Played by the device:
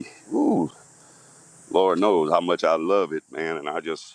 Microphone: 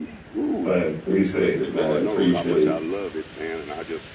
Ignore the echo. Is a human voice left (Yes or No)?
Yes